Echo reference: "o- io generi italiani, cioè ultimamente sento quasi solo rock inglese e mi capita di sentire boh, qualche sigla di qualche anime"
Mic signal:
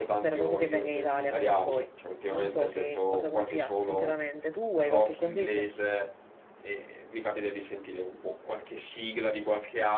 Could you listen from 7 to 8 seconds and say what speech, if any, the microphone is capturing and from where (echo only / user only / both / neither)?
echo only